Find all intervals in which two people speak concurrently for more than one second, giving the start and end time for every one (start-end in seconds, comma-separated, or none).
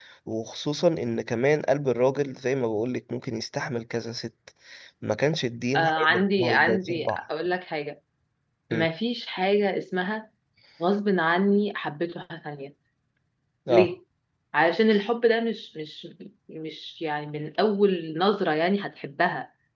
5.8-7.2